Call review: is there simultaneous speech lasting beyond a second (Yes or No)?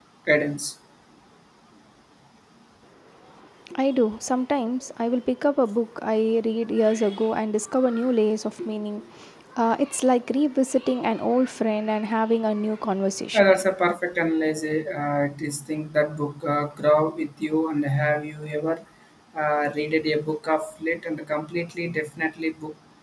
No